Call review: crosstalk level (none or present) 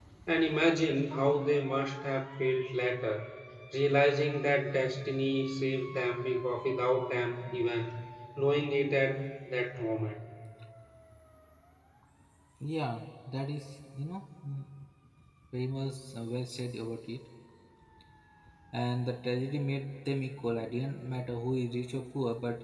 none